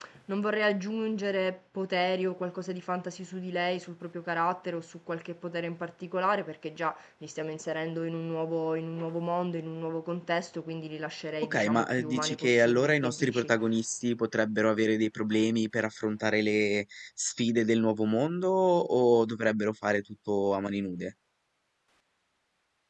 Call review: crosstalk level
present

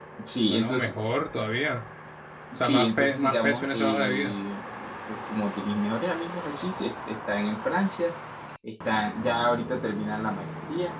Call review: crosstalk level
present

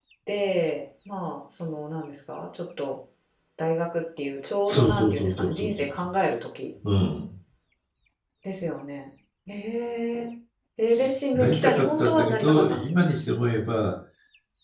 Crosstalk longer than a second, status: present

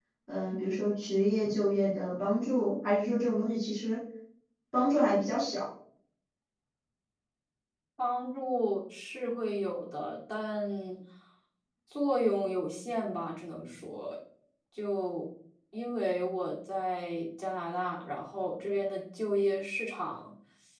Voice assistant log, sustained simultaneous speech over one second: none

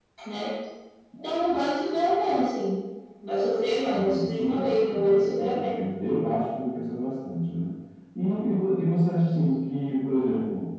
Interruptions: present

